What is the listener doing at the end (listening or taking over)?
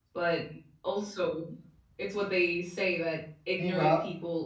listening